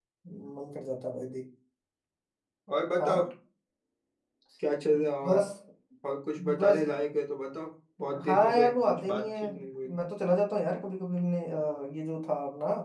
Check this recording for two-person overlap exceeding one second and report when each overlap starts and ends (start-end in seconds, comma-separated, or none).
8.2-9.5